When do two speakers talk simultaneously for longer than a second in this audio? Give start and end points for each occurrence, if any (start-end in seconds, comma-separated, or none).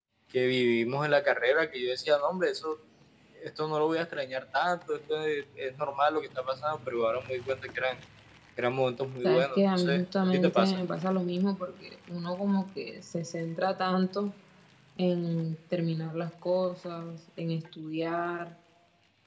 9.2-10.8